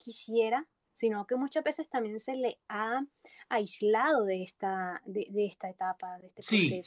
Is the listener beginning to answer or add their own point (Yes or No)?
Yes